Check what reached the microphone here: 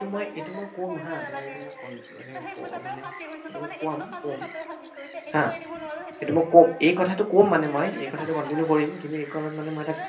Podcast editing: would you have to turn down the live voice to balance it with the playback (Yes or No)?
Yes